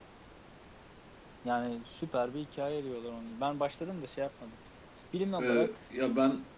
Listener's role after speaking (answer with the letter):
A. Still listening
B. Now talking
B